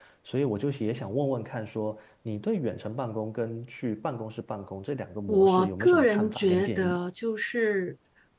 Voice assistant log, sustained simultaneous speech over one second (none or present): present